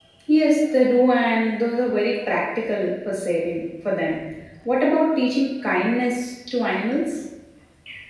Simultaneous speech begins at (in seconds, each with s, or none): none